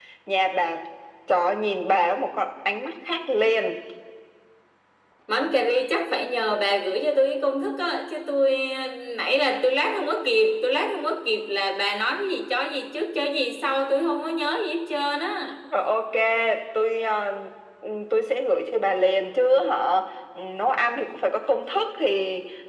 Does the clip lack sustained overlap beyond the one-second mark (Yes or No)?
Yes